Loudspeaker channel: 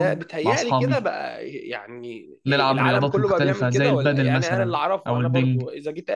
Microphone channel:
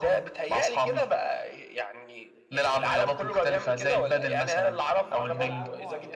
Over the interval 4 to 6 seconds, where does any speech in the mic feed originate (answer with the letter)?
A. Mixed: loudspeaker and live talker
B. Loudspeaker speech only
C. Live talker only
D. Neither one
A